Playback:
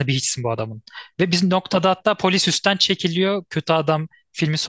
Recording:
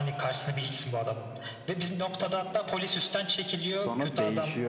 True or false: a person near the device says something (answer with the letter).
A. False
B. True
B